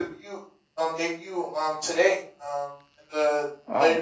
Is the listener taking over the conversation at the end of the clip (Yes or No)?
No